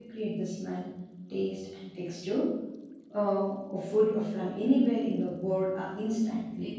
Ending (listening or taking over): taking over